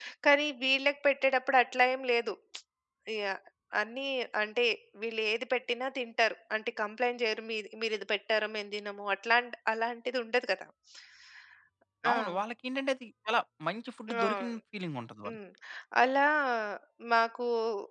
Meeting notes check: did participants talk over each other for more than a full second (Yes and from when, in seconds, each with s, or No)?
No